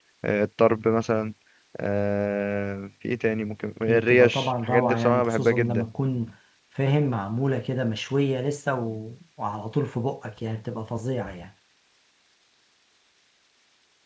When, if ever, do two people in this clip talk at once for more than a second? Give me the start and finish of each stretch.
3.8-5.8

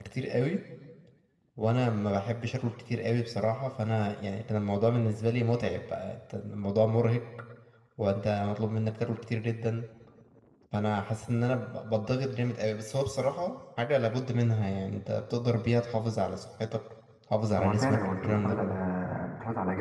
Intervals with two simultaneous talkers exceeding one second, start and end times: 17.6-18.8

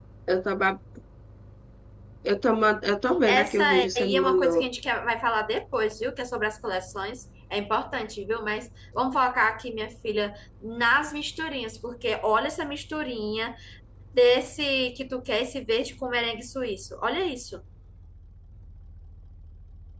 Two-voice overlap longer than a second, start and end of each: 3.3-4.7

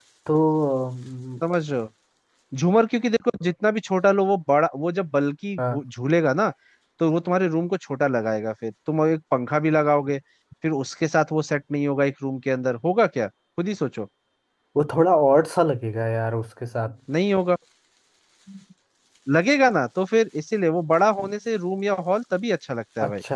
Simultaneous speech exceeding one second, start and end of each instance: none

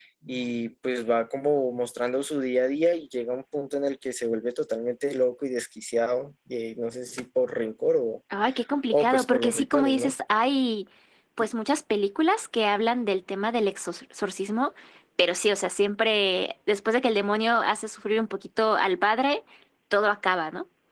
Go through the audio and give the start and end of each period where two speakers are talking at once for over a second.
8.9-10.1

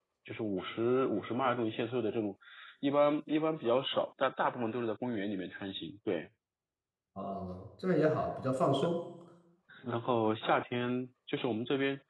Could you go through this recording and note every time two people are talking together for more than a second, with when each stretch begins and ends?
none

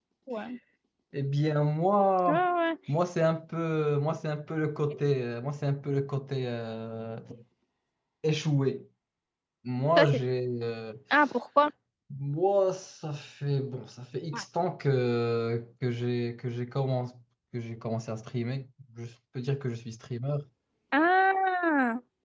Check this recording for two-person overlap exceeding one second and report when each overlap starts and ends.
none

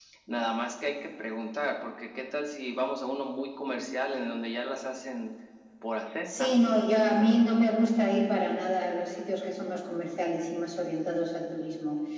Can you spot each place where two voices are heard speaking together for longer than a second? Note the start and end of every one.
none

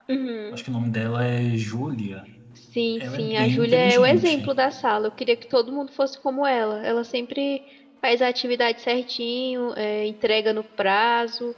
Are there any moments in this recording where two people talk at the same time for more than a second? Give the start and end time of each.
3.0-4.5

